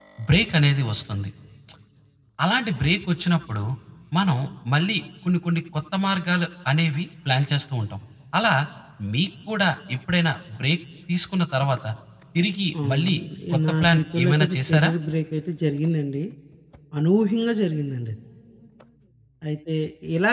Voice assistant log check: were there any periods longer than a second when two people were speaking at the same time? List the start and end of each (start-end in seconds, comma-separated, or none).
13.7-14.9